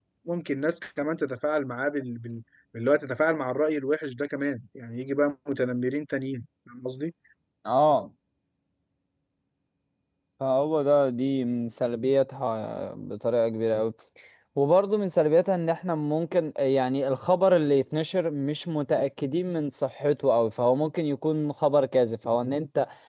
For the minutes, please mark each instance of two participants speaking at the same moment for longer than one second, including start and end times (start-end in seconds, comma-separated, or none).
none